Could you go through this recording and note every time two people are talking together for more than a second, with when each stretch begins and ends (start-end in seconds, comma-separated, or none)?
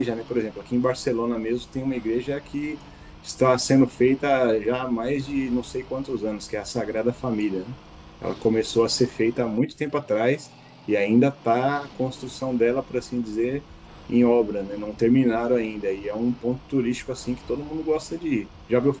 none